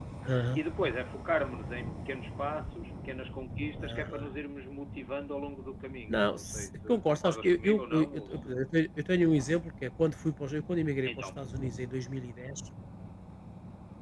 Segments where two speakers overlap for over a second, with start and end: 6.1-8.5

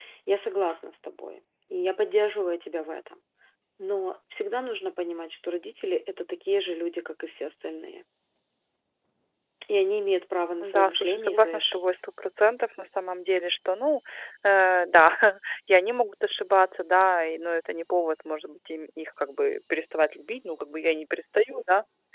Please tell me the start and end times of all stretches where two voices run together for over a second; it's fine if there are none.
10.6-11.8

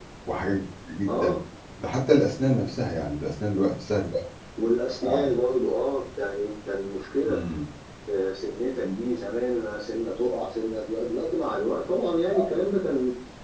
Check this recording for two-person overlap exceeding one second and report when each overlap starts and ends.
none

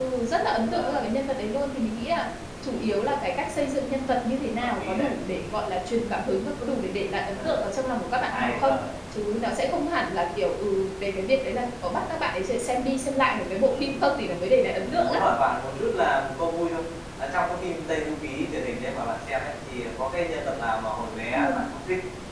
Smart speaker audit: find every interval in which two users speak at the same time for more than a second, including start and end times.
none

